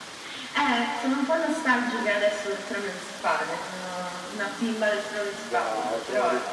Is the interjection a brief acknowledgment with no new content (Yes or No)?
No